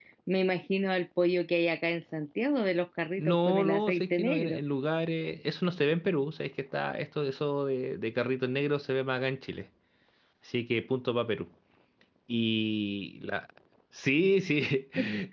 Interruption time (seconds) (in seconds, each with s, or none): 3.2 s